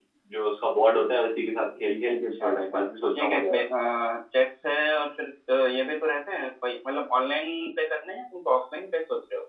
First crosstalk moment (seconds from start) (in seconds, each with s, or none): 2.1 s